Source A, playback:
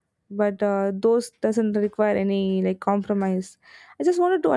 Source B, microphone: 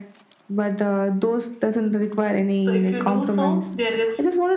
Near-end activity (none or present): present